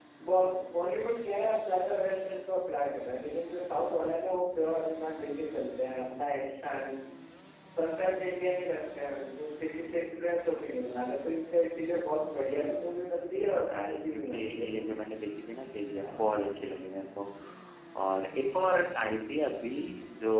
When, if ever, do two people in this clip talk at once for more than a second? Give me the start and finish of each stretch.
12.5-14.9

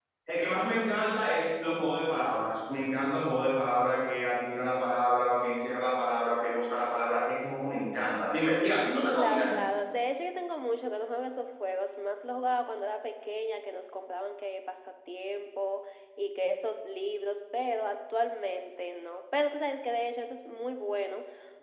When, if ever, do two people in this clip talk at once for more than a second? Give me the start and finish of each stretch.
none

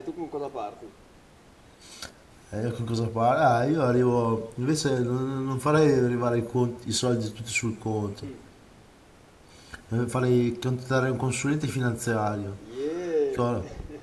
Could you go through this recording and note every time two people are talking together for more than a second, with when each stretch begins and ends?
none

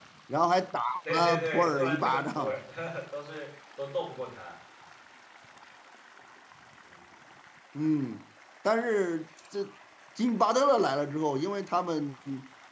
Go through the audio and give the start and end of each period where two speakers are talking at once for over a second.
1.1-2.6

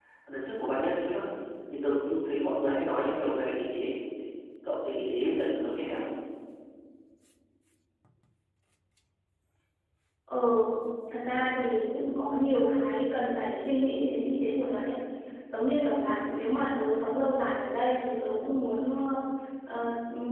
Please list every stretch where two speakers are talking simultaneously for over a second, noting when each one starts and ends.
none

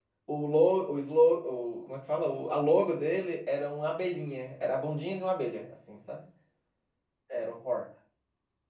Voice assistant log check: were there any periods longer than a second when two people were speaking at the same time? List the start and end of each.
none

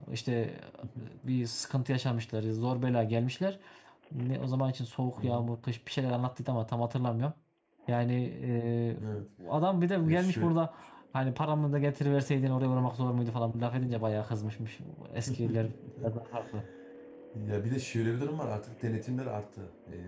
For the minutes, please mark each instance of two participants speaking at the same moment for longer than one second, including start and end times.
none

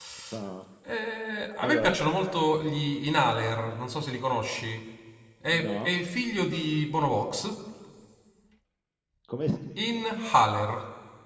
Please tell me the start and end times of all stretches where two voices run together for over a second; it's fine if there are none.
none

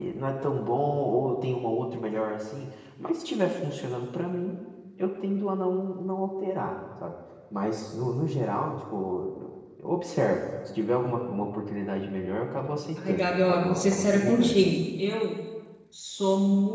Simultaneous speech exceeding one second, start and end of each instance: 13.1-14.6

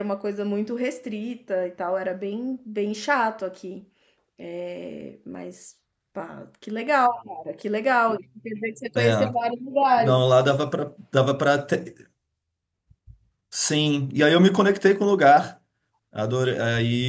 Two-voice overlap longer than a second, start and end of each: none

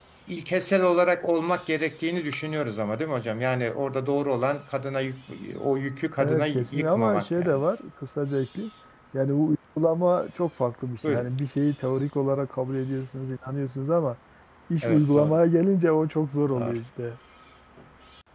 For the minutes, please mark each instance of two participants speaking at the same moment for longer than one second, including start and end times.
6.2-7.6

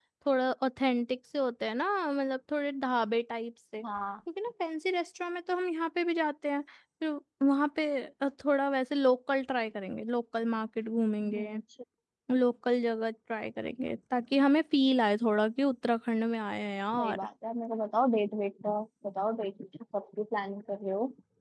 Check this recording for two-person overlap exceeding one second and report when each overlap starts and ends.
none

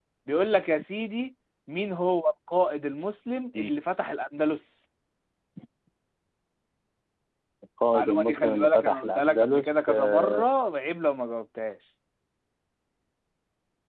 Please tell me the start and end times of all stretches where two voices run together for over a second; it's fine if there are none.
7.9-10.5

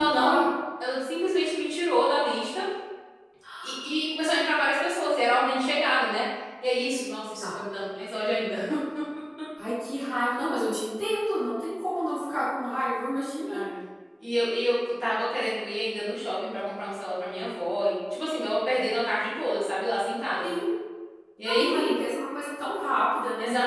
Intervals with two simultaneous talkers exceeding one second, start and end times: none

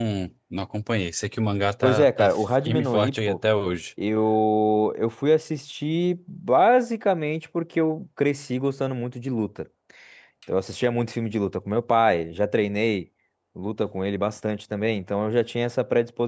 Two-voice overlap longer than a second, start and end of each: 1.8-3.4

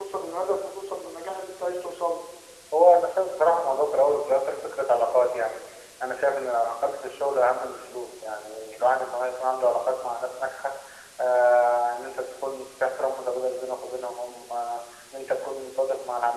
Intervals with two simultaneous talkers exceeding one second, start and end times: none

